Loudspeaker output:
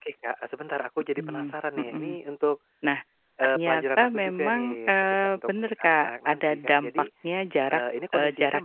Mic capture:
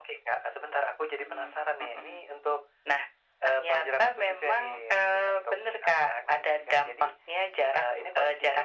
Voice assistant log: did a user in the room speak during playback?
No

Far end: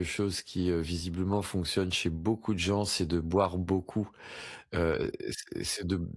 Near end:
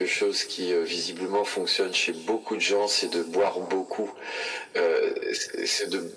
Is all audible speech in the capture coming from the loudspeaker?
Yes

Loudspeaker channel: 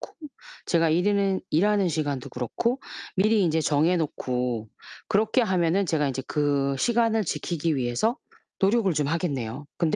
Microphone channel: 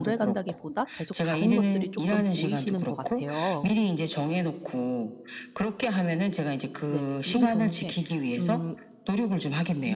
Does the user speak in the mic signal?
Yes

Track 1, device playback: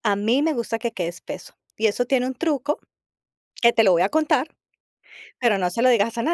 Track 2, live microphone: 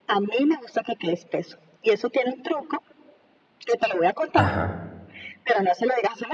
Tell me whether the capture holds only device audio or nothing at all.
No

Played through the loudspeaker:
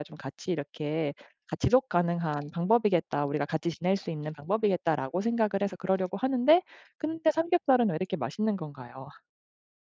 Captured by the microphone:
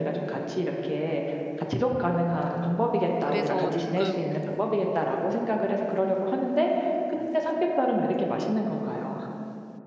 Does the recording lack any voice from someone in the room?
No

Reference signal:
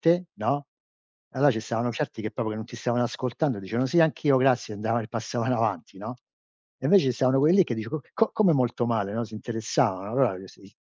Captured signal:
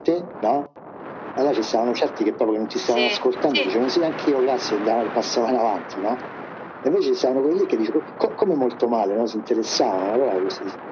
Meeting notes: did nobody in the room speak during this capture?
No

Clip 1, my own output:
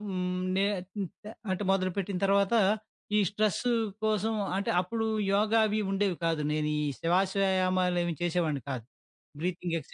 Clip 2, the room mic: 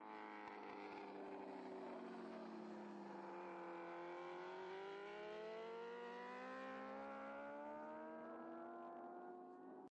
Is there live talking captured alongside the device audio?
No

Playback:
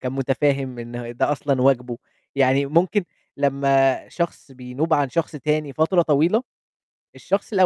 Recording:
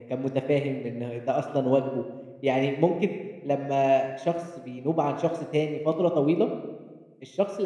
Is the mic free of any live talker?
Yes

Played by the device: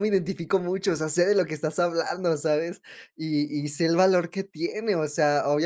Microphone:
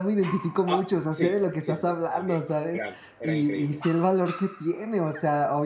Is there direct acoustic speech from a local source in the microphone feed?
Yes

